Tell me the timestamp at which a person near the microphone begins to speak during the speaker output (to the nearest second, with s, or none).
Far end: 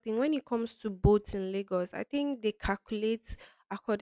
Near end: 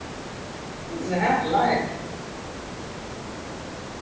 1 s